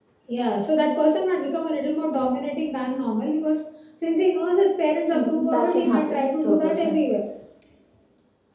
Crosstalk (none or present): present